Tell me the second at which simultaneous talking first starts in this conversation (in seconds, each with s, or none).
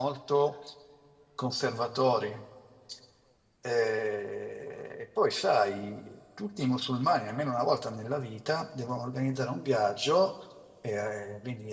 none